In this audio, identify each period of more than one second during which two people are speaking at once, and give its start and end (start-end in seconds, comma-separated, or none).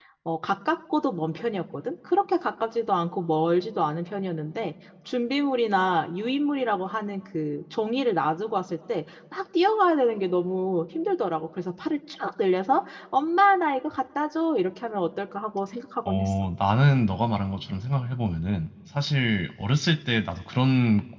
none